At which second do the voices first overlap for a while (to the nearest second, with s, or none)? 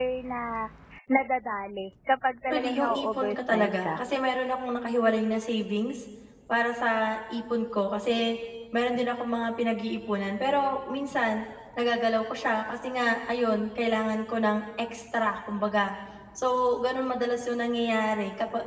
3 s